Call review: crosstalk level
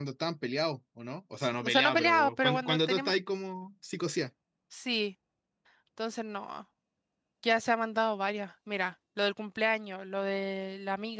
present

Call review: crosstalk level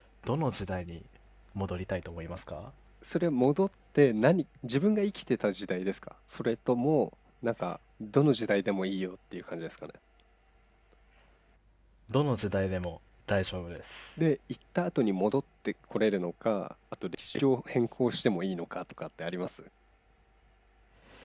none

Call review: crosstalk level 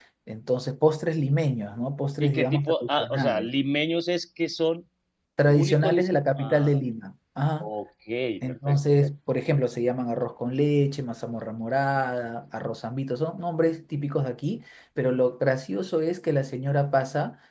present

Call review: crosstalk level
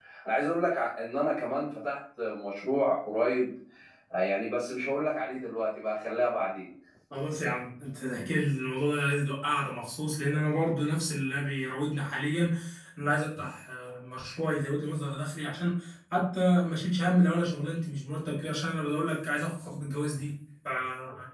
none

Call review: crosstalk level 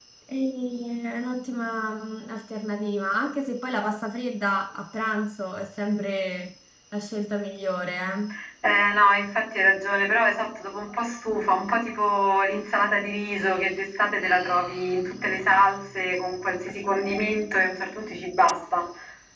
none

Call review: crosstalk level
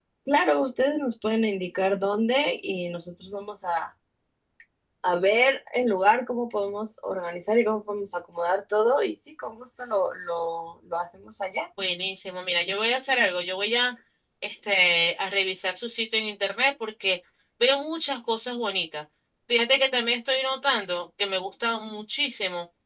none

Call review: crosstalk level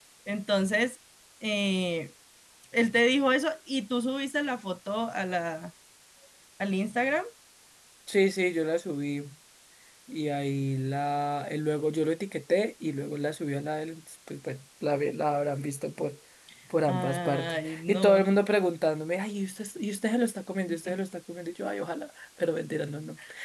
present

